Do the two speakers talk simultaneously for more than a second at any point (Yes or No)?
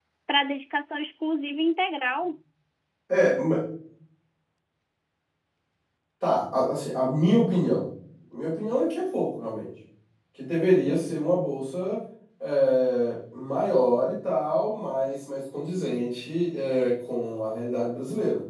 No